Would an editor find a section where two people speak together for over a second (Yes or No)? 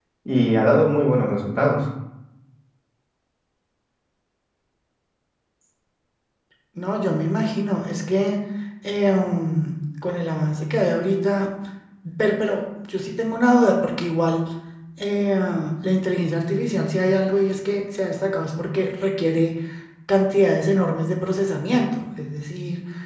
No